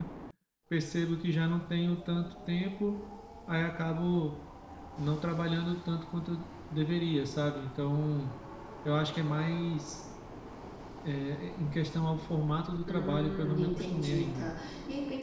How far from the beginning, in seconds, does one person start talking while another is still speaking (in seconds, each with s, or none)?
12.9 s